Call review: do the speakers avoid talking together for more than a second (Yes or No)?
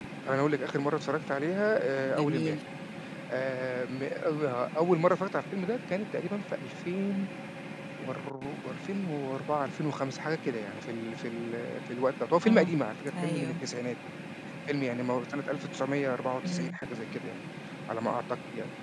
Yes